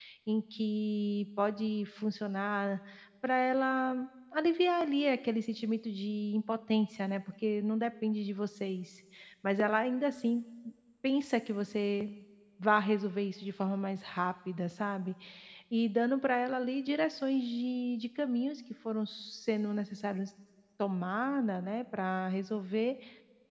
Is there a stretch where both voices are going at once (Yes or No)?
No